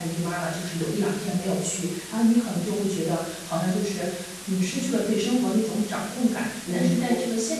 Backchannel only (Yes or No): Yes